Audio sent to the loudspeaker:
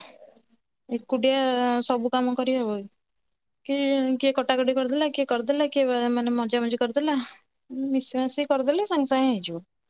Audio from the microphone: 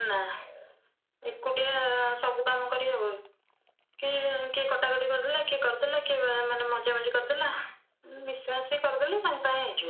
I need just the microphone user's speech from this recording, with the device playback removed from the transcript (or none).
none